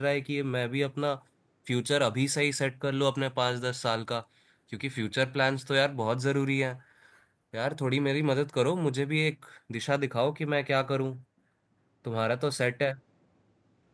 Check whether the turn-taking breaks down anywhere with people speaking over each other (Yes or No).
No